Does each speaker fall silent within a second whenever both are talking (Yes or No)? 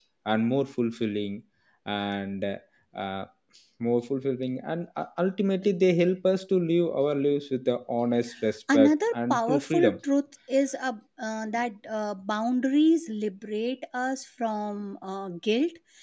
No